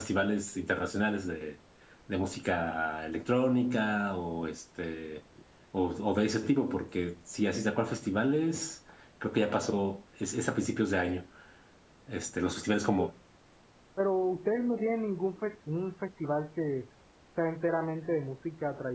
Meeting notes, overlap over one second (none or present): none